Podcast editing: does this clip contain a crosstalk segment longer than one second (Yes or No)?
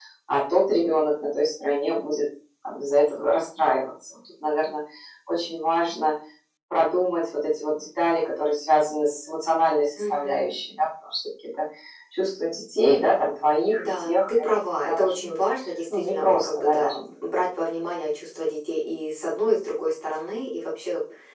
Yes